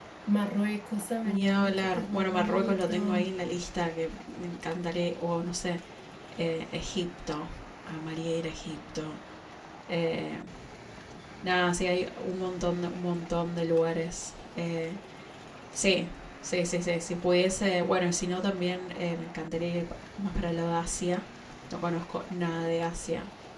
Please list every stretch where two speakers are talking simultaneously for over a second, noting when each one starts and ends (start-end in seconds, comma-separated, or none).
1.2-3.3